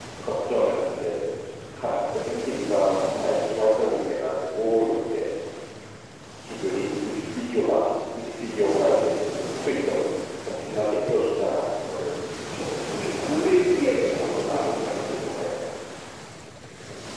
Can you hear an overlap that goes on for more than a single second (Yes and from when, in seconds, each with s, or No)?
Yes, from 13.0 s